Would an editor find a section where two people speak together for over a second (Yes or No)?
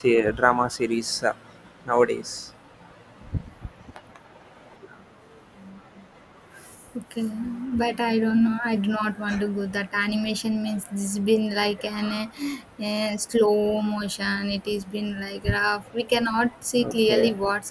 No